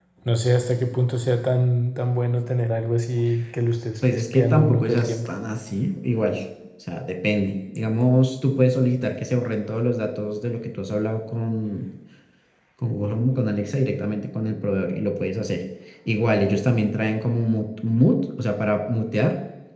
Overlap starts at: 4.0 s

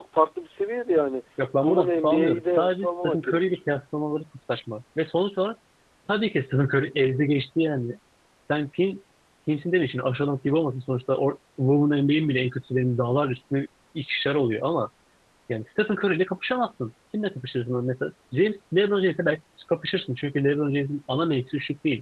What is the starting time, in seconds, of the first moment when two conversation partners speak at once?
1.6 s

